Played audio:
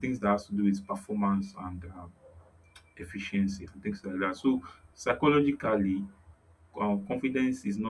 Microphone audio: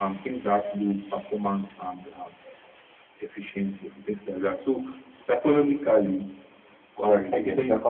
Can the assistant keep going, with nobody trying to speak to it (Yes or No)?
No